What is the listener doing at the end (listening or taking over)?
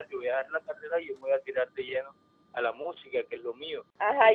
taking over